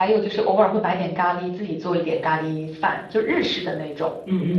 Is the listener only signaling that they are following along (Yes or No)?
No